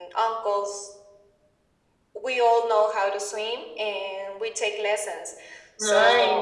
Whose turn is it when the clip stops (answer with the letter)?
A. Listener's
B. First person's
B